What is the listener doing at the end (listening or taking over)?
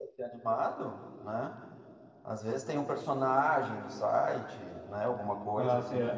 taking over